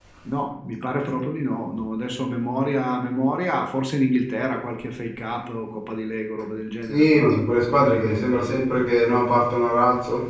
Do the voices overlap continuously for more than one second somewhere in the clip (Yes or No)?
Yes